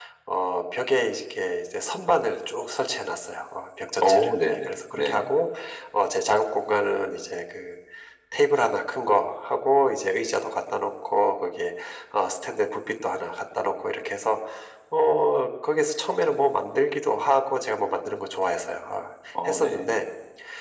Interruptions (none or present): present